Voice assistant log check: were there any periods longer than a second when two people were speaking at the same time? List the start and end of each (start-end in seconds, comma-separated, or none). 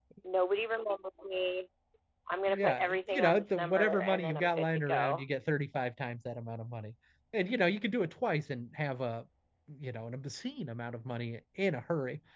2.5-5.2